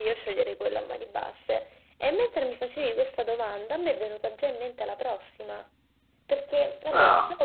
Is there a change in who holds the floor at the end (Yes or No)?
No